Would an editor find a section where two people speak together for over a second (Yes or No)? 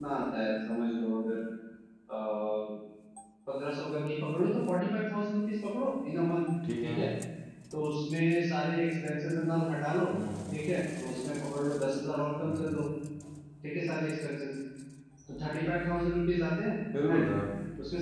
No